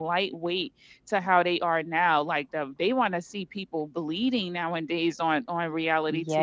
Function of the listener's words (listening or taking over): taking over